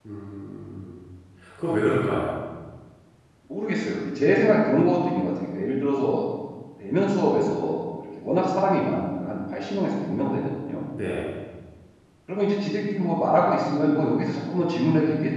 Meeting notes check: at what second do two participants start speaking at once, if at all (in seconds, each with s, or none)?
none